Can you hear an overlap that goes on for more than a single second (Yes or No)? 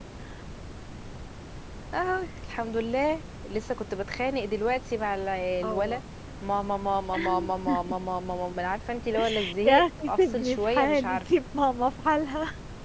Yes